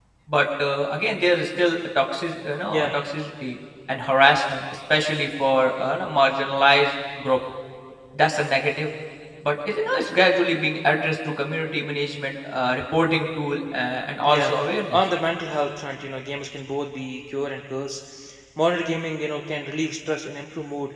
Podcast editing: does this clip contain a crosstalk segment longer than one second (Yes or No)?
No